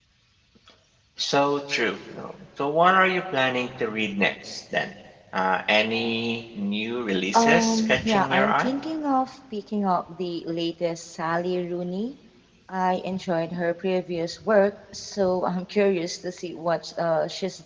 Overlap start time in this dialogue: 7.3 s

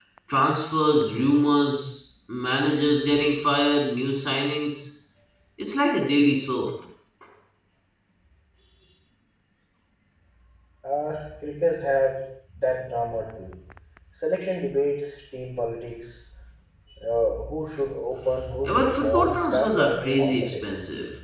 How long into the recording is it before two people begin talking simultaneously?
18.6 s

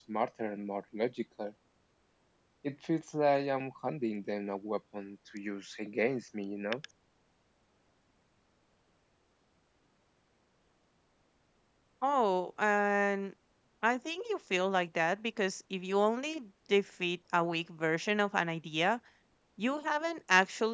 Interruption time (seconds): none

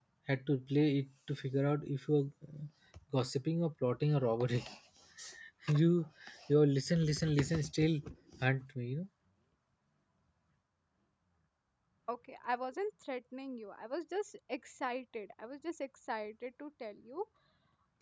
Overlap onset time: none

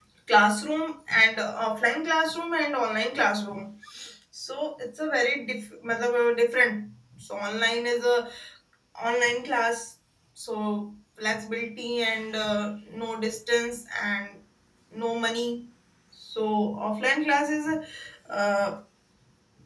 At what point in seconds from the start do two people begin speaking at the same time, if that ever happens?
none

